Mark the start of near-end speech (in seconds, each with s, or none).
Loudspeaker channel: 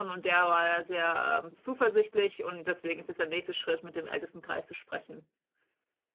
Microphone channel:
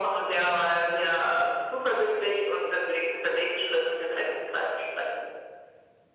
none